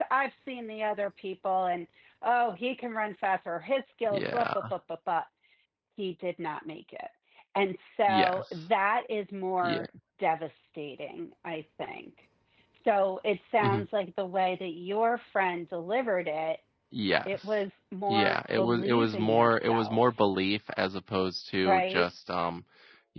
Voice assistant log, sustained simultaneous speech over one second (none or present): present